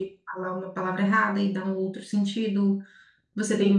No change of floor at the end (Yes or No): Yes